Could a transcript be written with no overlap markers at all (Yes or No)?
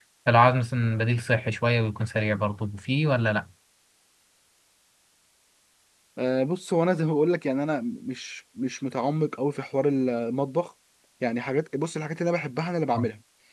Yes